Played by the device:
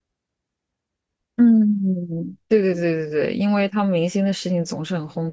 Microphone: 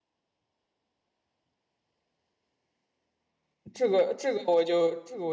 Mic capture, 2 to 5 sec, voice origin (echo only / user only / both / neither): user only